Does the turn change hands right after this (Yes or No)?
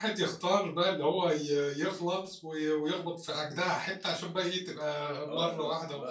Yes